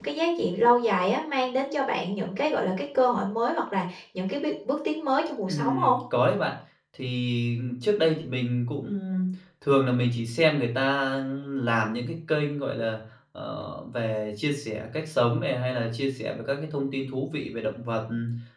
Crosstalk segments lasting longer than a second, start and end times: none

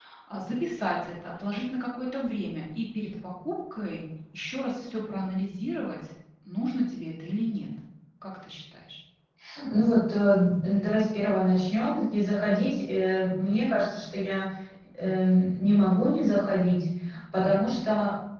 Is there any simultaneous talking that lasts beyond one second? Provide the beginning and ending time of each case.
none

